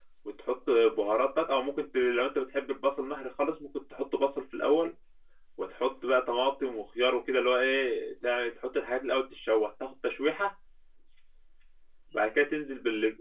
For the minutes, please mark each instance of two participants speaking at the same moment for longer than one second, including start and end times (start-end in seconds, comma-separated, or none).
none